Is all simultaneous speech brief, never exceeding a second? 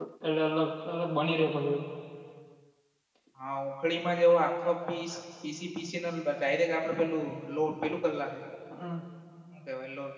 Yes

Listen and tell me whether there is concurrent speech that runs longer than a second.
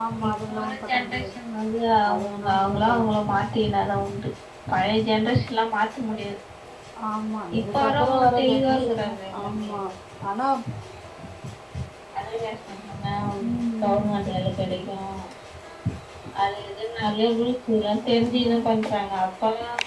Yes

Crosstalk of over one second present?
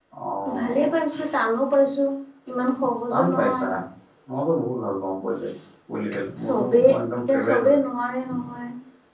Yes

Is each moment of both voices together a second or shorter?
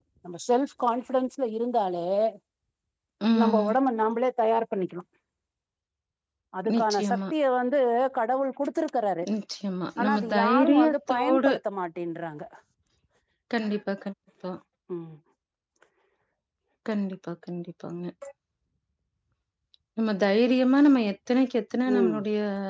No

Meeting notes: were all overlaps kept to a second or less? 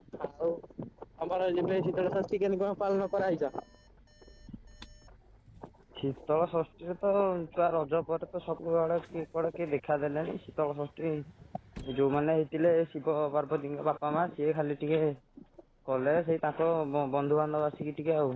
Yes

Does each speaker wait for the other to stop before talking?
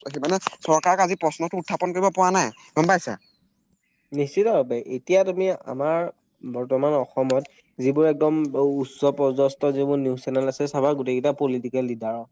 Yes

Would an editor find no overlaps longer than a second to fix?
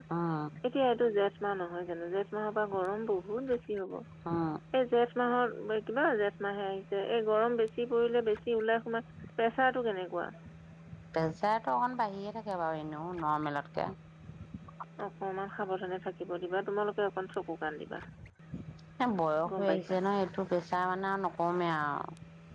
Yes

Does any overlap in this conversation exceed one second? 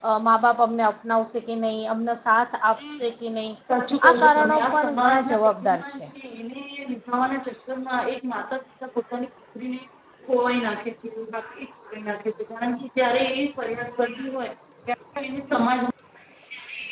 Yes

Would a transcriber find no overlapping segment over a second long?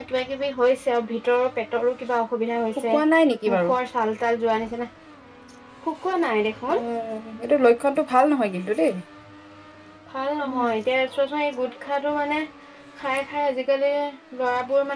Yes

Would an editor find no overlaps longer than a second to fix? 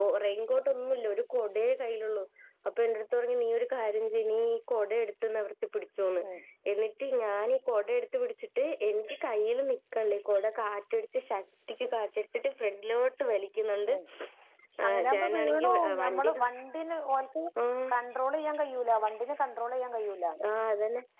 No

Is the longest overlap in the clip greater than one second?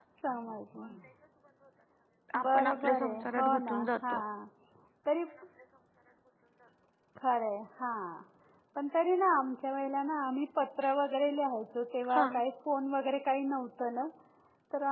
Yes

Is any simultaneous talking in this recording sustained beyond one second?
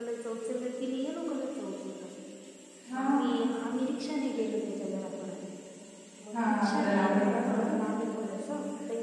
Yes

